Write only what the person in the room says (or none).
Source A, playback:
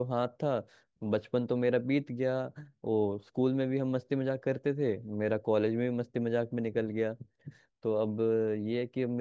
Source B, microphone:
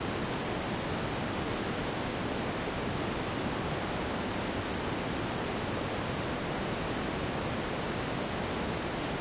none